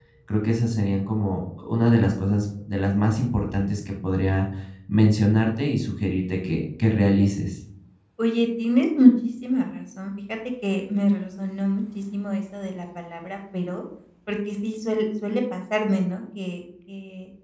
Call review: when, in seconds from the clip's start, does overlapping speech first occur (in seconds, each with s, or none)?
none